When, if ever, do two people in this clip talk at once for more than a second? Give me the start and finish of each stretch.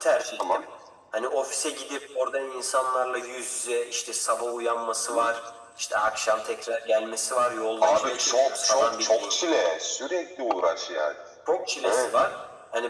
7.8-9.4

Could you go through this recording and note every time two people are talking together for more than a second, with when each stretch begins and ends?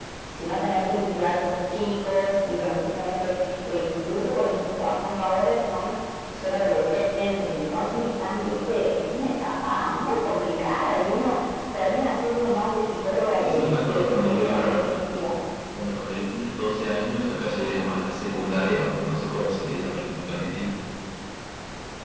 13.4-14.9

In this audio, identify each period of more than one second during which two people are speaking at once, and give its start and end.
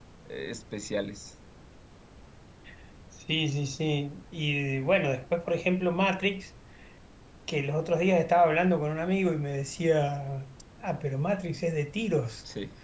none

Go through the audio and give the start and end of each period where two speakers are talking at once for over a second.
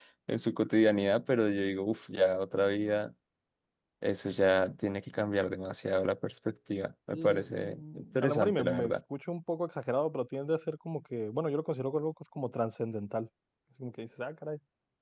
7.1-8.9

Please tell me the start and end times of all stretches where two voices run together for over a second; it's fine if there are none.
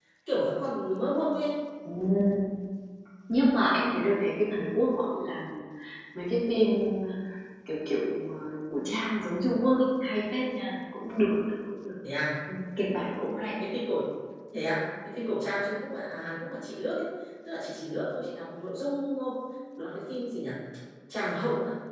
none

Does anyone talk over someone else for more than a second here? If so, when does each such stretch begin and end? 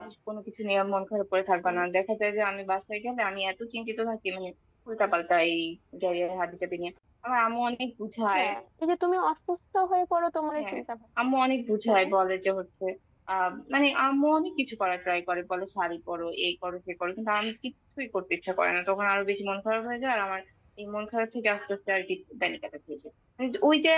none

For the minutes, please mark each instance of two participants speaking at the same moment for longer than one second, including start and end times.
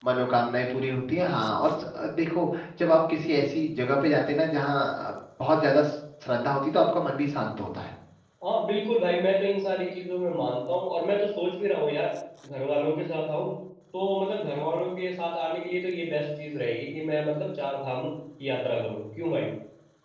none

